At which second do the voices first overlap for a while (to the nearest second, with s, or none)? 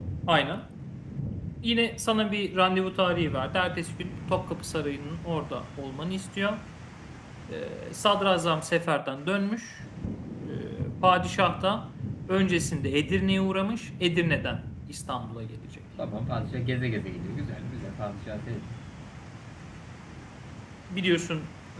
none